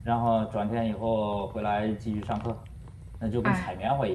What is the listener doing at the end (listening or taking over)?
listening